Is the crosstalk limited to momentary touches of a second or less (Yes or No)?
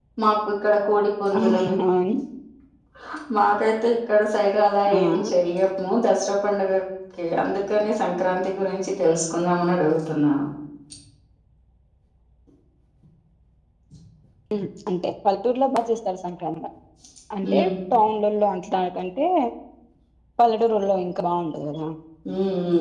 Yes